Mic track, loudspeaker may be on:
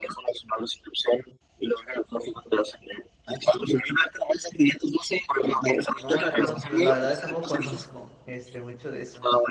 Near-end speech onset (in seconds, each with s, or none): 5.3 s